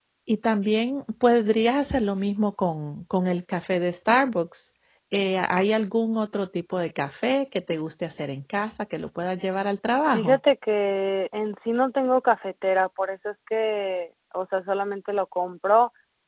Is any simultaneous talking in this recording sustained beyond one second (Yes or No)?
No